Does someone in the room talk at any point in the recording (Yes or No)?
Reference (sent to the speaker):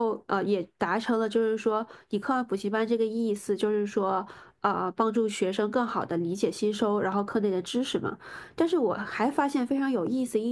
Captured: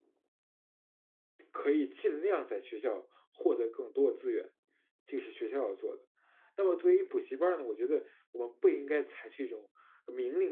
Yes